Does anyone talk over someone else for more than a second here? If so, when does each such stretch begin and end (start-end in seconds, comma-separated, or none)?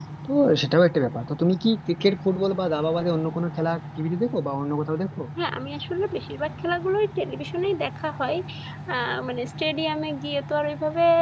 none